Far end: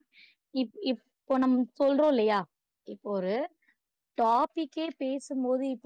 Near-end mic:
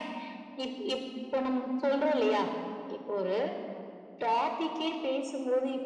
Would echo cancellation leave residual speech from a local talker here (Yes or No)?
No